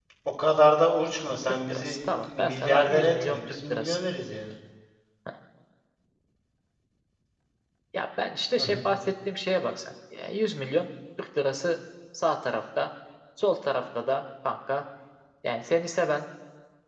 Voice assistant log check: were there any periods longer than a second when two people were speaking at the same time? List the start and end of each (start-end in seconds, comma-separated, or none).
1.7-4.0